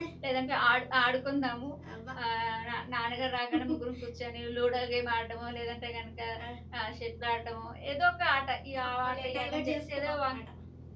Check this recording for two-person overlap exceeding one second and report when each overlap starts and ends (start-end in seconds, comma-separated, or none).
8.8-10.4